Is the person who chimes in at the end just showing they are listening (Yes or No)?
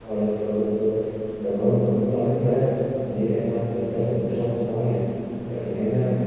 Yes